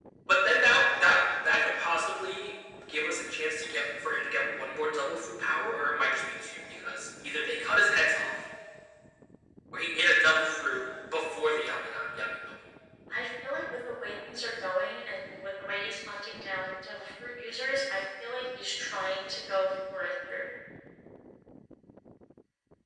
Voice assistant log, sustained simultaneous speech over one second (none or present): none